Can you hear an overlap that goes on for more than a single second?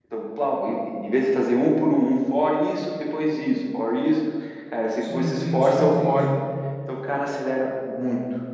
Yes, from 5.0 s

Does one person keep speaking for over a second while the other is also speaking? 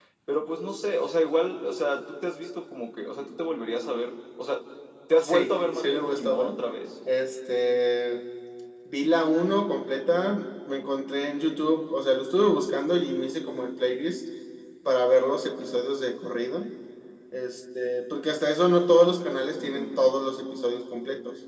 Yes, from 5.2 s

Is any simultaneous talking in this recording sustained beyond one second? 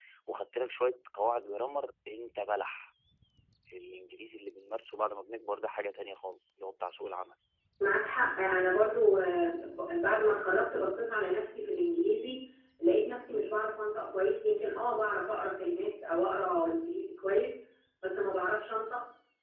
No

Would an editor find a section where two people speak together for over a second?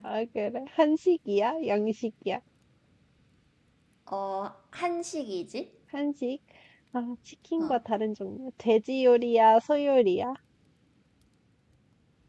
No

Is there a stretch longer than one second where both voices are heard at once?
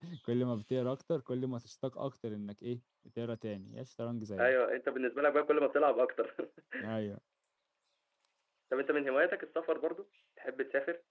No

